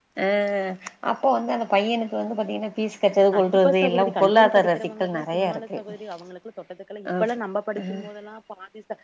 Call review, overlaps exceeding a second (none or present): present